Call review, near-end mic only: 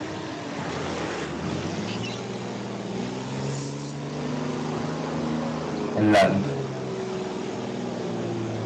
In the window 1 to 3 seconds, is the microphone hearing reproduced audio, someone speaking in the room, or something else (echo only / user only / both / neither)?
neither